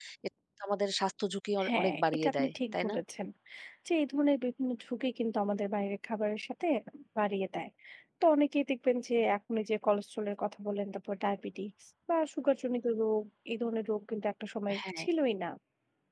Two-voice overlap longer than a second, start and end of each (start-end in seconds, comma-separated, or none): 1.7-3.0